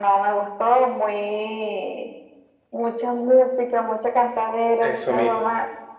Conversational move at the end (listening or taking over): listening